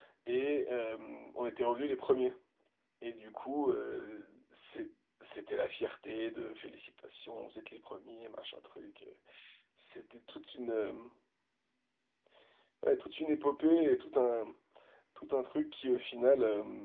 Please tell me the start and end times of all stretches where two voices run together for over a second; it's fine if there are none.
none

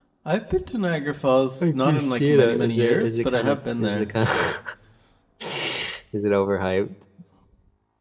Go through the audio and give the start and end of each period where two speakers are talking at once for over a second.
1.6-4.1

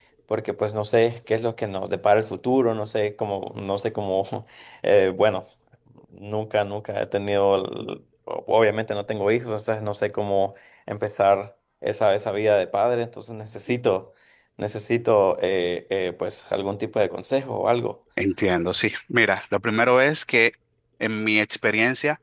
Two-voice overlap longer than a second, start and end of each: none

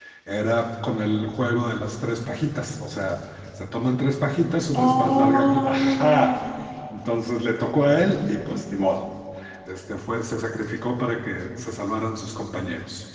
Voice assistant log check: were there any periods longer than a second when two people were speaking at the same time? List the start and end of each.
4.8-6.4

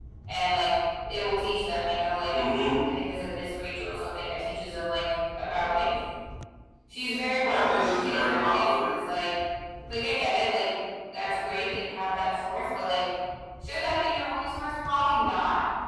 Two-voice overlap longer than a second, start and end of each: 7.4-8.9

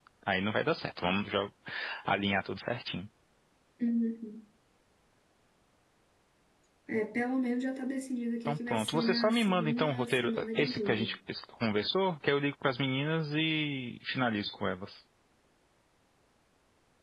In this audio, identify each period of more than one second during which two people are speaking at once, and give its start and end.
8.4-11.2

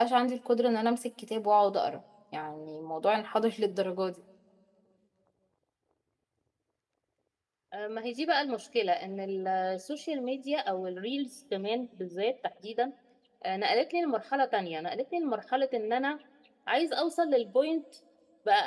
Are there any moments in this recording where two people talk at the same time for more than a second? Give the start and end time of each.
none

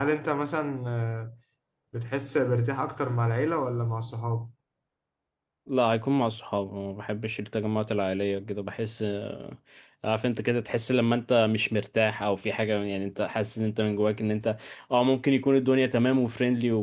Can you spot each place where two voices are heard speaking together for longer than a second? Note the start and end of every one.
none

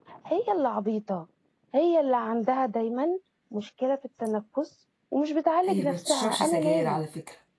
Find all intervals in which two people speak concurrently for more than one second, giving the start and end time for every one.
5.6-7.0

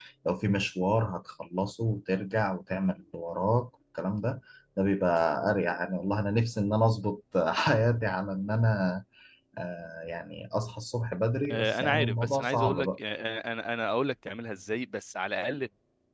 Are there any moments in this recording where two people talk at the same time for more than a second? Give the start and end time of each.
11.5-12.9

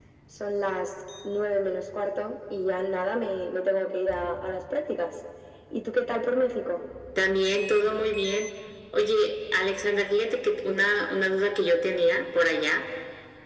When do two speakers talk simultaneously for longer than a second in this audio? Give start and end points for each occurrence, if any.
none

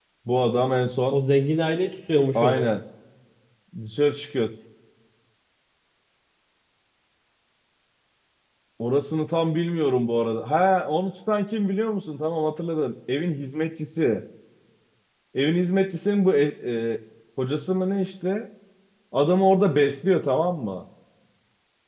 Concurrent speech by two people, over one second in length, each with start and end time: none

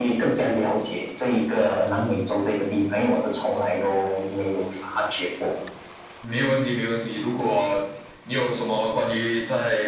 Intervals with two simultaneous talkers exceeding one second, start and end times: none

